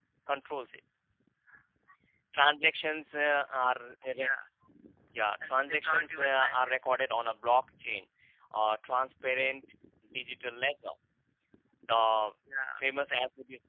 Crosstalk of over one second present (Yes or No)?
Yes